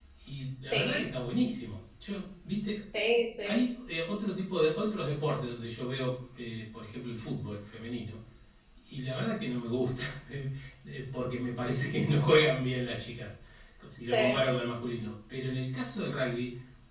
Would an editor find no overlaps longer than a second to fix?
Yes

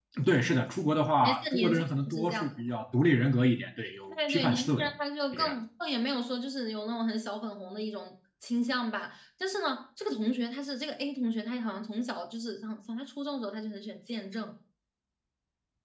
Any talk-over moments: Yes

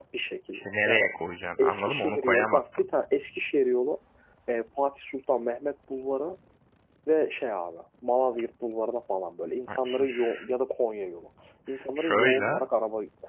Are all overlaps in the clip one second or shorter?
No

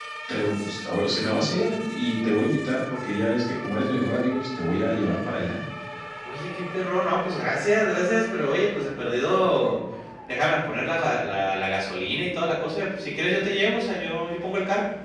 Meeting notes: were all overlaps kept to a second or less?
Yes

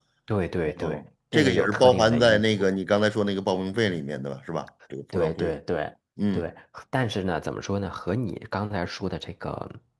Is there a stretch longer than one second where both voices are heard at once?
Yes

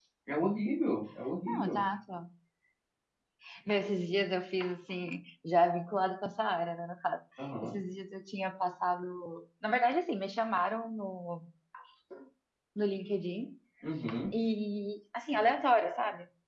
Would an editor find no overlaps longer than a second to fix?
Yes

